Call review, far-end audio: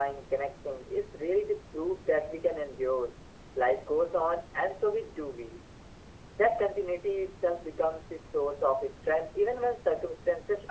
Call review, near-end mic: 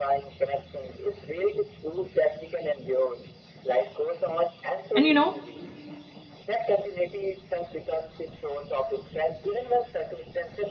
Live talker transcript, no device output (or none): and you know